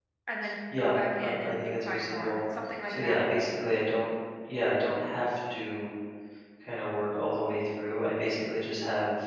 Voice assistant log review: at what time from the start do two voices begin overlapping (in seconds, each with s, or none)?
0.8 s